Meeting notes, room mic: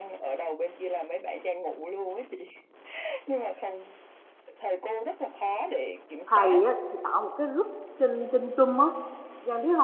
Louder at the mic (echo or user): user